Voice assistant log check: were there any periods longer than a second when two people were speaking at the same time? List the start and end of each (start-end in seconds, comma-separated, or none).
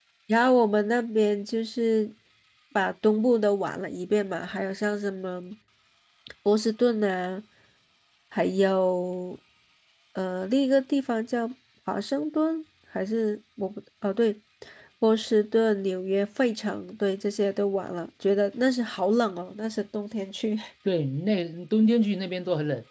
none